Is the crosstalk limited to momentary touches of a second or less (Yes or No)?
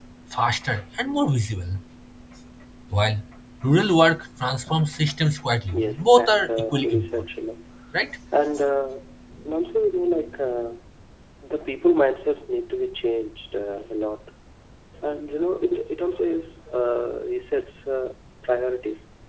No